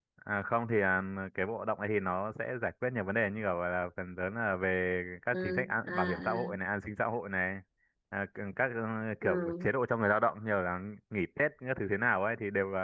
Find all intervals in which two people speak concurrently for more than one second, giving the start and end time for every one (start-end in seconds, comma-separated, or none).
5.3-6.5